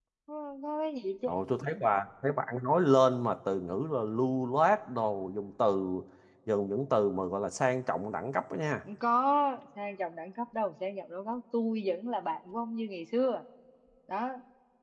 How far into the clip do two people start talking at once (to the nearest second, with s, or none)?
none